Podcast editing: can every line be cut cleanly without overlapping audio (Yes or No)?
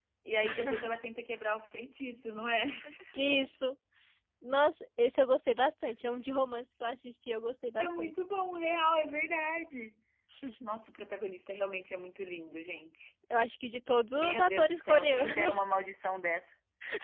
No